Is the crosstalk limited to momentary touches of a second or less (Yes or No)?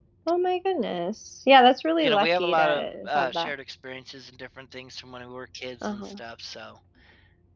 No